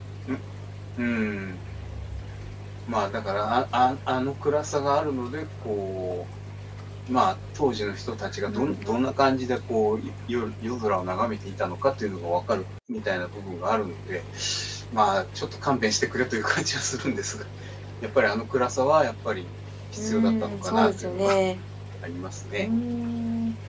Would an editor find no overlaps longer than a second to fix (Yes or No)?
No